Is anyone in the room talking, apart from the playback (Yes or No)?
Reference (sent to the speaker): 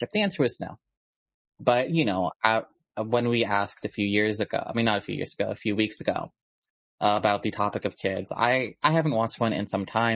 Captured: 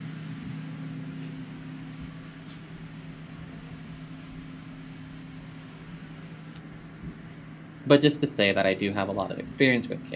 Yes